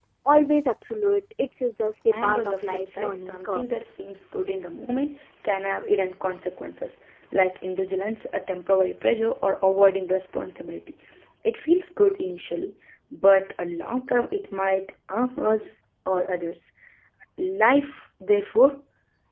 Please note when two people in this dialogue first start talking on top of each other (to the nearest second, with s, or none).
2 s